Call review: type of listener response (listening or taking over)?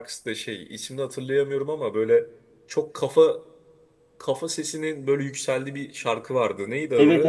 taking over